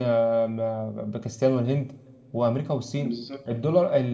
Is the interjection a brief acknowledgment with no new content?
Yes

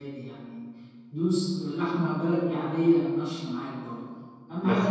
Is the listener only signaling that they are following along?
Yes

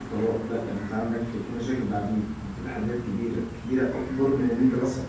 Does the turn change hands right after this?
No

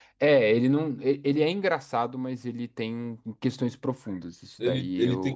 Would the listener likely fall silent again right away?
No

